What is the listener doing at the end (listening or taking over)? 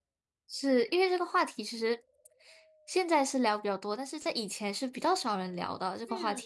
taking over